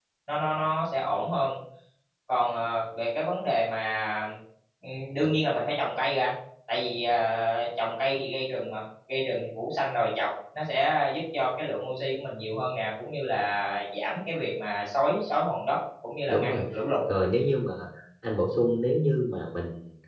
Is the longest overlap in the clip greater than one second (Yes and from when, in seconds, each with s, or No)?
No